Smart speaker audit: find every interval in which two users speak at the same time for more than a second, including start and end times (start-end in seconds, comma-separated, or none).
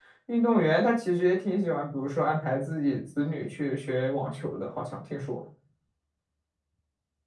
none